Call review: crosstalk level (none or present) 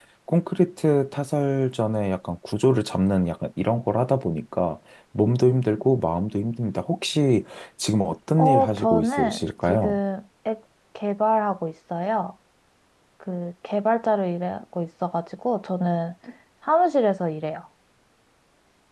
present